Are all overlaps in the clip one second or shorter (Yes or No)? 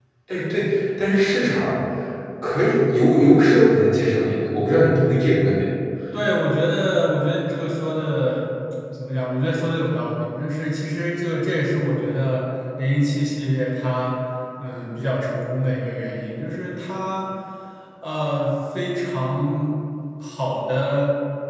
Yes